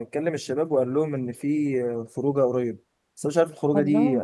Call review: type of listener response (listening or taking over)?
listening